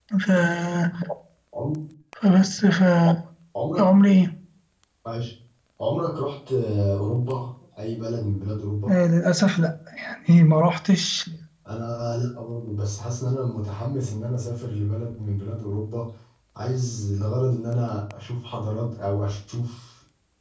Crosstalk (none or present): none